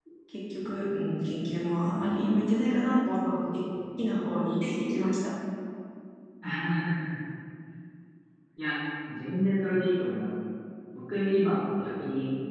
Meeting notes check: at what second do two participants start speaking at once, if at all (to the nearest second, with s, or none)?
none